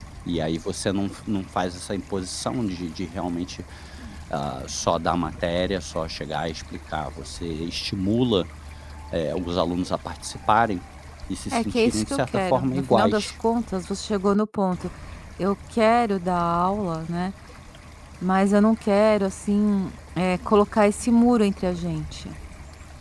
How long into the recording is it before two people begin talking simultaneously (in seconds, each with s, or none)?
11.5 s